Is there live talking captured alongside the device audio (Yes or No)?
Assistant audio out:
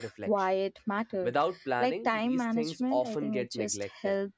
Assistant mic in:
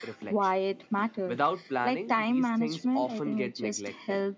No